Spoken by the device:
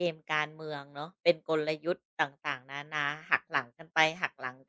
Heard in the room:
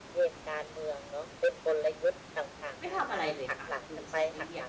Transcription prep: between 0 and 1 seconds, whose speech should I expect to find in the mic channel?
echo only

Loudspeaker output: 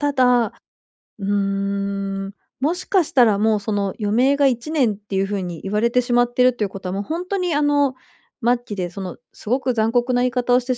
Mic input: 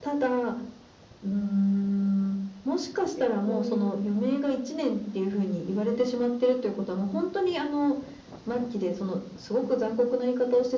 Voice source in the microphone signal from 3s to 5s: both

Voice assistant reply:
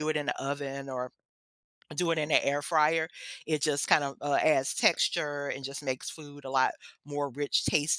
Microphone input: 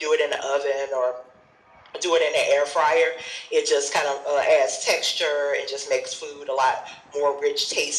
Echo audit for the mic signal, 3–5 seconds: echo only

